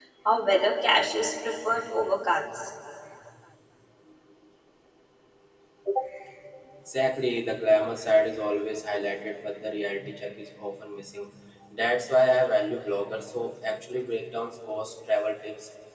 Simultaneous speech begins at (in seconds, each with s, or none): none